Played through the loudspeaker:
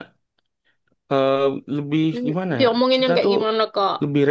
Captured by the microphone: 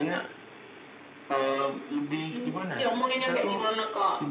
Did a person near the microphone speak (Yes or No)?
No